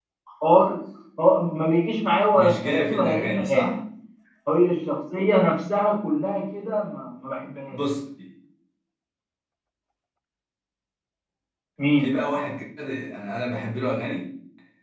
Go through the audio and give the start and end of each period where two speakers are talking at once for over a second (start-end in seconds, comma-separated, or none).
2.3-3.8